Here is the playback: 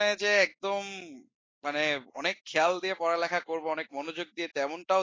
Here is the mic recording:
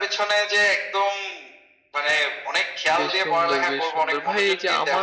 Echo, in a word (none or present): present